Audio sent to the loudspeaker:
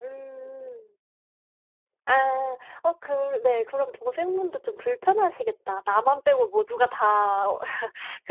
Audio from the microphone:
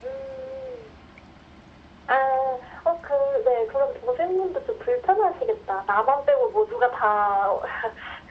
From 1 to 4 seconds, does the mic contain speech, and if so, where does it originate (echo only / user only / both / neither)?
echo only